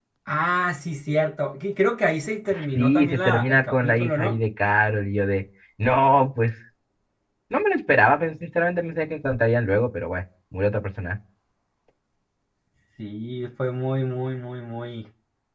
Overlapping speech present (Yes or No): Yes